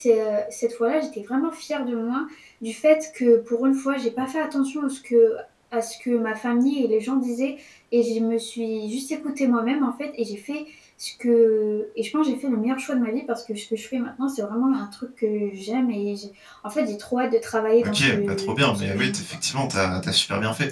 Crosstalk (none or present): present